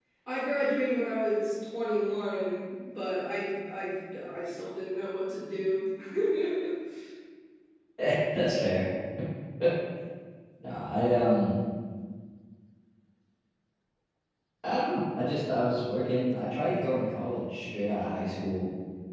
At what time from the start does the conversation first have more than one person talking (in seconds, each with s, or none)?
none